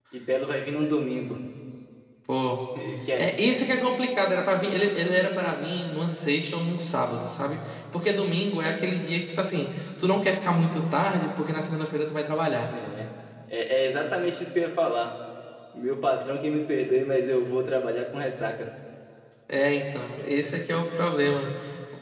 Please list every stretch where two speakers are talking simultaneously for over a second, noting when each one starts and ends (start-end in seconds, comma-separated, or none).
none